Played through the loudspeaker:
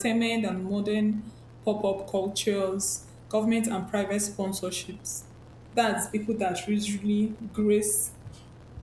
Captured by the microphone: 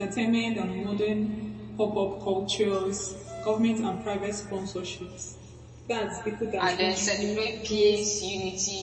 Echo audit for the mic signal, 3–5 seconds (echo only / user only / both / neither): echo only